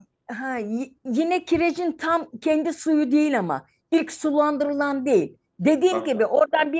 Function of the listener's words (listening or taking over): listening